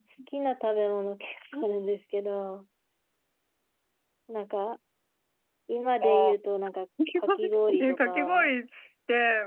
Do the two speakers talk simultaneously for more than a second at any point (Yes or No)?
Yes